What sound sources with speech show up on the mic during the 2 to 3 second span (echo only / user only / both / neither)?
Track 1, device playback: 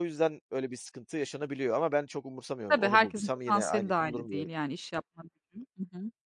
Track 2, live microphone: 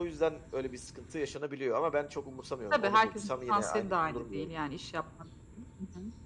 echo only